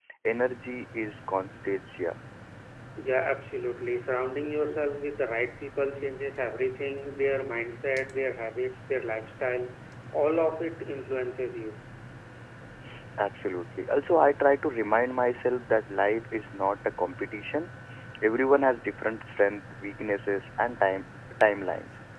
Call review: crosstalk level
none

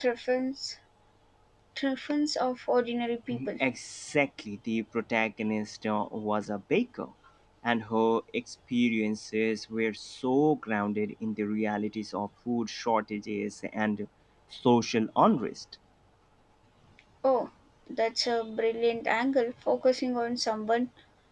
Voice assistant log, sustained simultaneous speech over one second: none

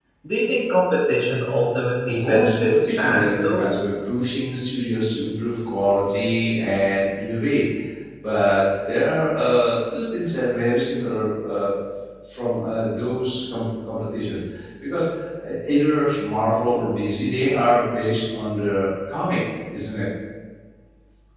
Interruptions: present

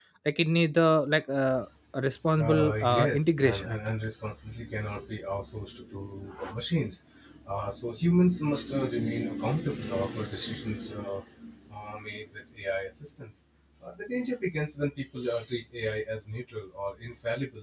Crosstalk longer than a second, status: present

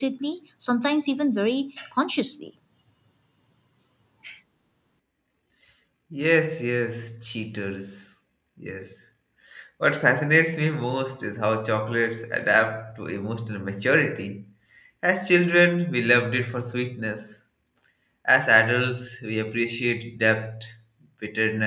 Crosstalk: none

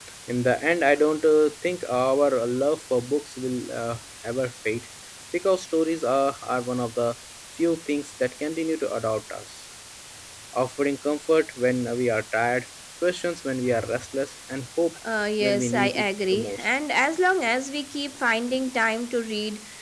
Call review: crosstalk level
present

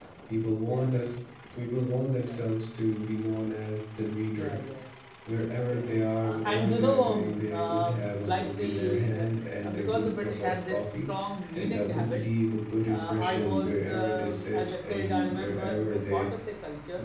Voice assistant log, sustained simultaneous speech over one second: present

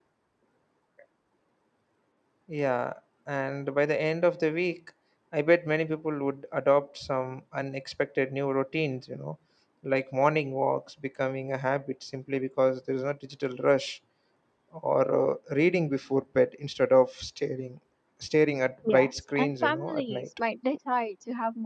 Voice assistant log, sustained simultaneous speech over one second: present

